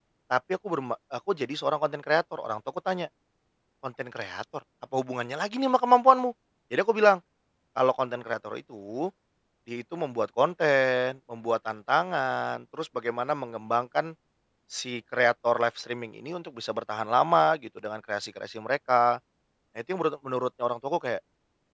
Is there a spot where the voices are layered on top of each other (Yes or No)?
No